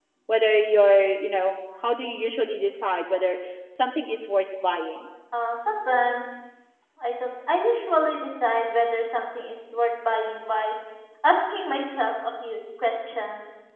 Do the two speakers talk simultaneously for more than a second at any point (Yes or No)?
No